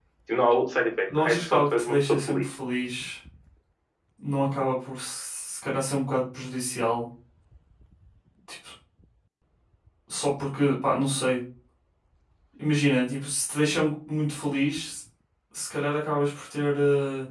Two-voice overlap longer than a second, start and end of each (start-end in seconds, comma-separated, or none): 1.2-2.4